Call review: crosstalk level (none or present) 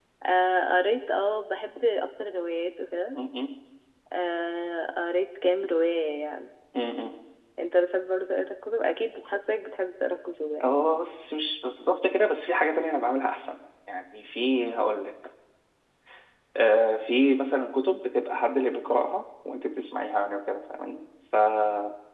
none